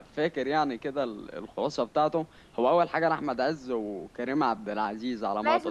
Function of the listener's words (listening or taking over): taking over